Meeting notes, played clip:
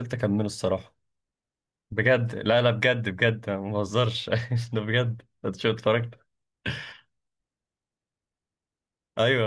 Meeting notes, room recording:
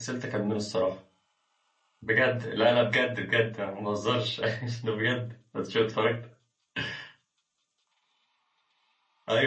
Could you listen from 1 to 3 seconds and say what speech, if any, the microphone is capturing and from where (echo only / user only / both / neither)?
echo only